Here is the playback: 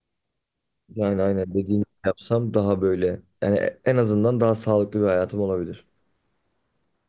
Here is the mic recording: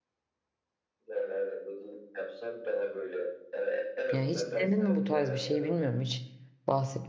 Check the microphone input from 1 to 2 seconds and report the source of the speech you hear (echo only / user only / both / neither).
echo only